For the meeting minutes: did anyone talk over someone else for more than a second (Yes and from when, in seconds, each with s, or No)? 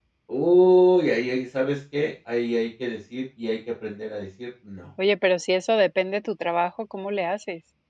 No